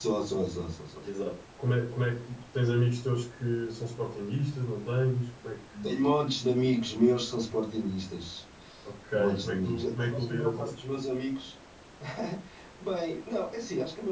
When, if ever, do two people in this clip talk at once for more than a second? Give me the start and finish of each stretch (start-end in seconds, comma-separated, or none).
9.1-11.0